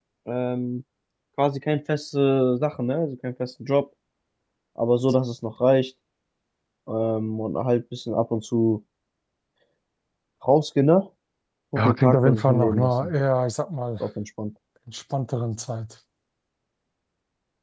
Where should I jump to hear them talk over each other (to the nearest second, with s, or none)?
12 s